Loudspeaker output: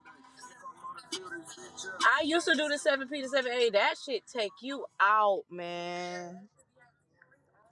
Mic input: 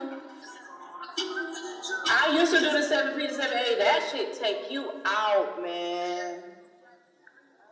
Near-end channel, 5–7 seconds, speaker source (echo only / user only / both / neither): echo only